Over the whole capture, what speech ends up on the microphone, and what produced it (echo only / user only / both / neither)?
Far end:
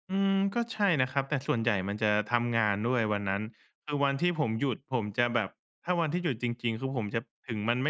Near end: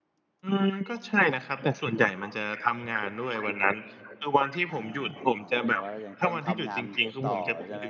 both